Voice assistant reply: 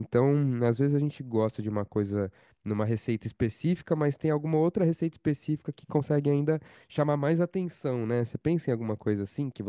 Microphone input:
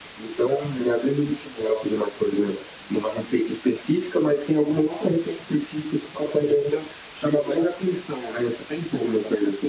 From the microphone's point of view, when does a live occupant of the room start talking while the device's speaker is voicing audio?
none

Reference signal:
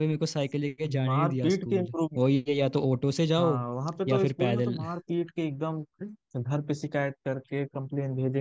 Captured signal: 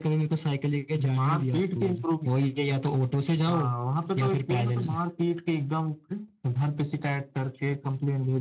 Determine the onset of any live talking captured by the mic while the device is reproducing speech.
none

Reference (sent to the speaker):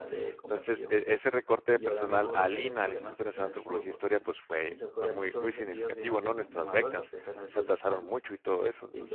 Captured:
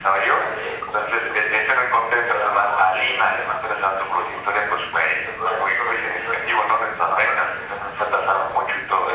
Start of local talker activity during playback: none

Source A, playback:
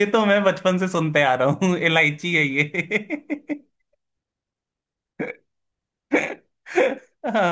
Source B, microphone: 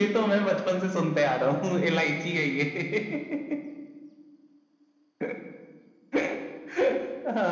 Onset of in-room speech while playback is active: none

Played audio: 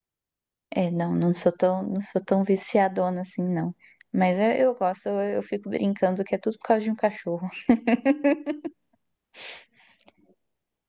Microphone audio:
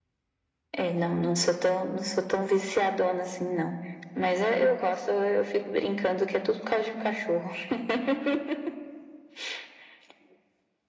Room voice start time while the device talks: none

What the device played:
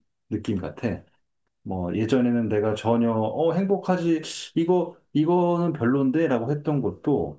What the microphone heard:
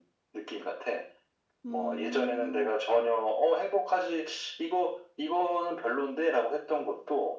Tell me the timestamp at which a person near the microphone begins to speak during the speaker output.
2 s

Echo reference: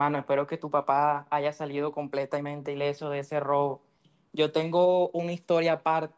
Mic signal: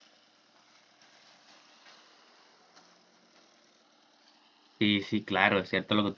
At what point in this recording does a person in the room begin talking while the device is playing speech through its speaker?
5 s

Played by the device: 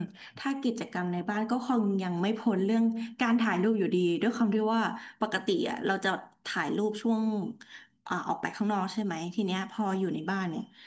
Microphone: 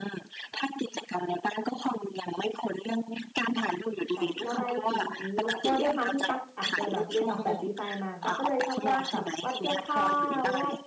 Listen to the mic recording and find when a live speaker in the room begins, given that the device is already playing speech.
4 s

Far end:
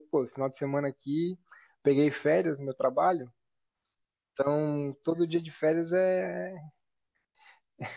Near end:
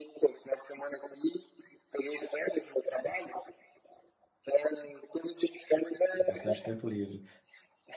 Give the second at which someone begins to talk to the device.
6 s

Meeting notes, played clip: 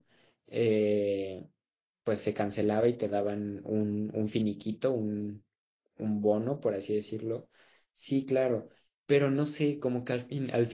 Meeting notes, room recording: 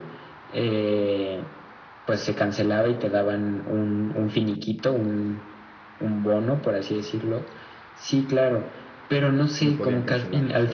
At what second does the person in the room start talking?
10 s

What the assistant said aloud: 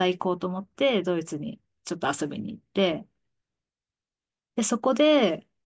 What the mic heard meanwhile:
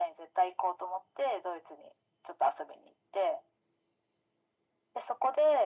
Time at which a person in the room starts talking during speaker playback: none

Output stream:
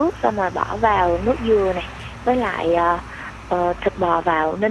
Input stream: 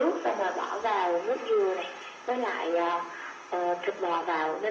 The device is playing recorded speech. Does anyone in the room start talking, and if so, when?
none

